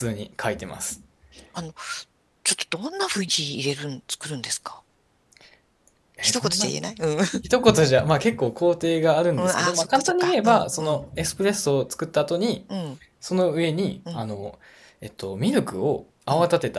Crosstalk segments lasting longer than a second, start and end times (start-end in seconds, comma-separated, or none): 9.3-11.0